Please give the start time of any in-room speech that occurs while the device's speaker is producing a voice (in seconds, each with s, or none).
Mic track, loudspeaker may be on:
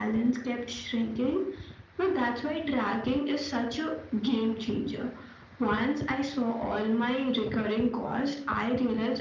none